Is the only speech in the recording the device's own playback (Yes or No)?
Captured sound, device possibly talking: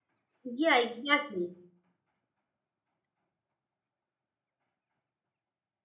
No